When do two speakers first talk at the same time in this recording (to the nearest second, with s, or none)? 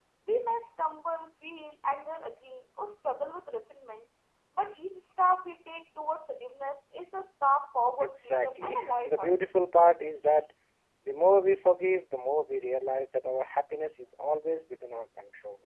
8 s